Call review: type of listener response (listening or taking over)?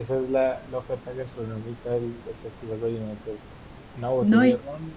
listening